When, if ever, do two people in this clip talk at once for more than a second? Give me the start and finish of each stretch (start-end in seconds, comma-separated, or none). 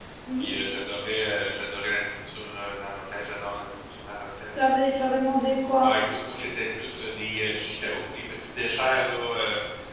none